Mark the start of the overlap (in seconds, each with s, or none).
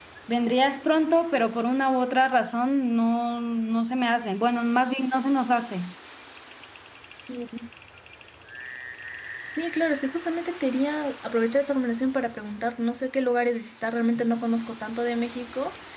none